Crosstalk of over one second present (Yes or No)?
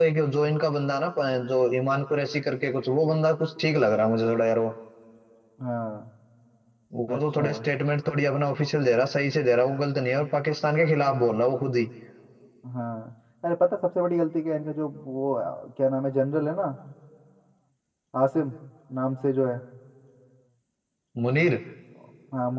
No